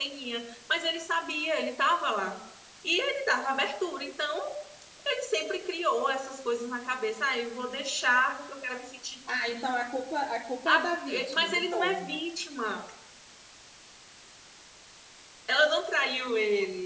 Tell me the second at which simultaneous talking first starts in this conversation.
10.7 s

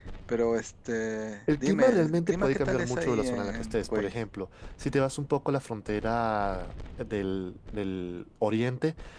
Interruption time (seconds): 1.5 s

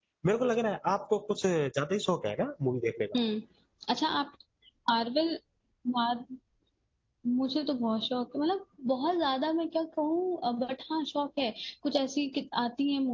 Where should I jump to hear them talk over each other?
none

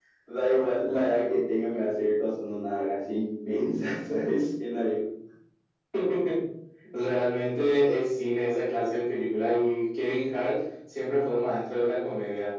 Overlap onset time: none

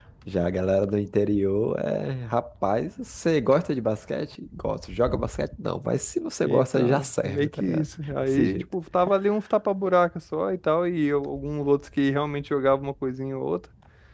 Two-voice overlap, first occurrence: 6.5 s

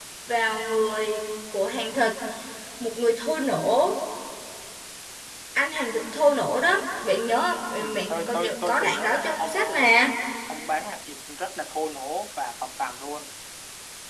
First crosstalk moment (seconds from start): 7.8 s

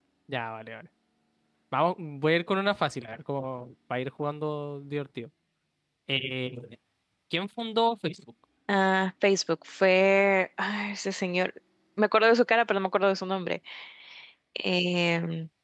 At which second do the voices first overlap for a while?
none

